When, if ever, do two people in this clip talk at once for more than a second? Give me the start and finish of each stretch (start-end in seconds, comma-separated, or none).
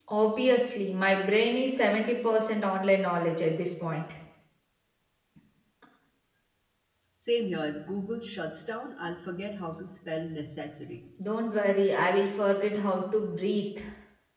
none